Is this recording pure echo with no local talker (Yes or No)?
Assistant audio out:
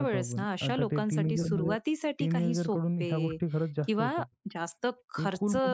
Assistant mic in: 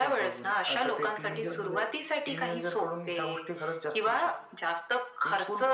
Yes